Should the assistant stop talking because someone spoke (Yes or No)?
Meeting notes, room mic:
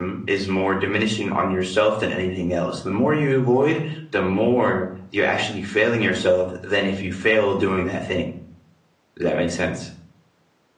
Yes